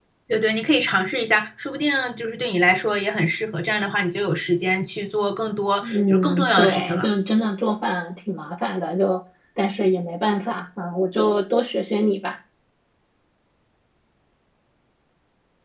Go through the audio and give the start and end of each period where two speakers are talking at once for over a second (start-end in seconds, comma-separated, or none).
5.8-7.1